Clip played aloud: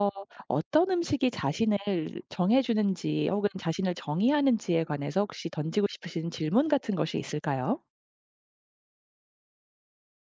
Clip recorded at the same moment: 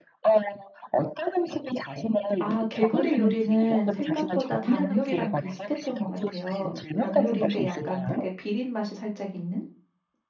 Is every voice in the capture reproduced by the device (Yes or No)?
No